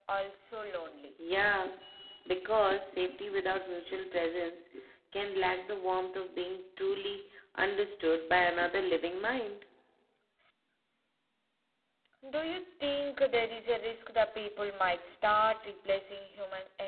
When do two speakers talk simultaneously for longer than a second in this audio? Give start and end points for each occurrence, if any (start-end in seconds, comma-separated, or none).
none